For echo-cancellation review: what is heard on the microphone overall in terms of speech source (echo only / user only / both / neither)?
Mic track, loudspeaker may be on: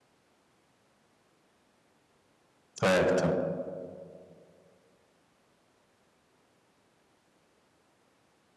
user only